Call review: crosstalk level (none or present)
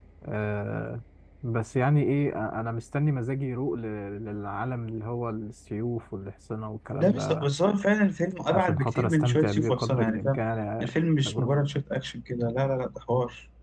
present